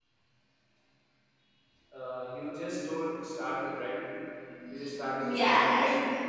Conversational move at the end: taking over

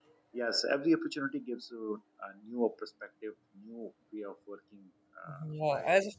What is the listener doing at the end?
taking over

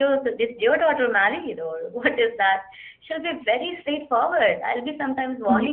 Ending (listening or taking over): listening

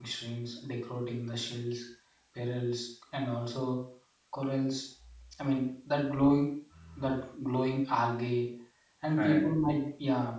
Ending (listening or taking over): listening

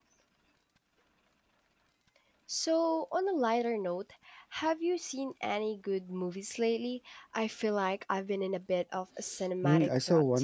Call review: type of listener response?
taking over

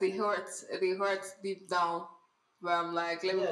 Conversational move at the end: taking over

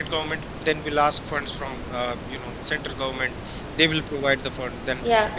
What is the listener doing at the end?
listening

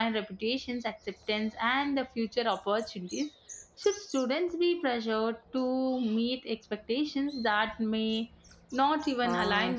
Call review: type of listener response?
taking over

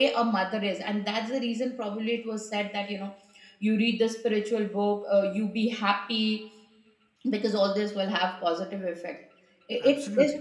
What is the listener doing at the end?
listening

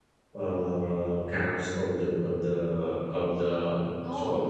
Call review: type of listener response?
listening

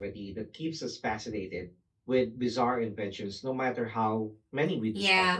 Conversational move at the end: taking over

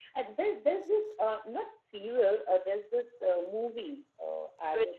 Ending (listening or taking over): listening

